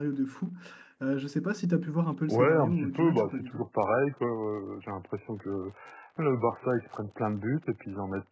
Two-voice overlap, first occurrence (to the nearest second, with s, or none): 2 s